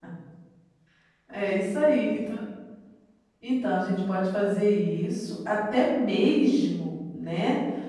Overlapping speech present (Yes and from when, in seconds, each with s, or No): No